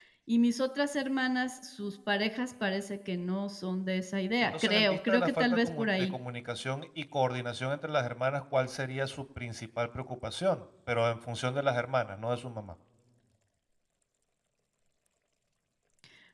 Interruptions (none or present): present